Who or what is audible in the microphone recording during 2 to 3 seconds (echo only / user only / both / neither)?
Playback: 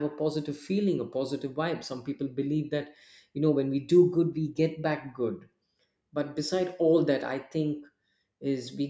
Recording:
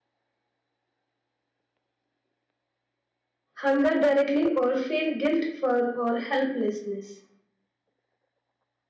neither